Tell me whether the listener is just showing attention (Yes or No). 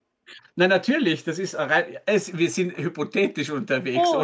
No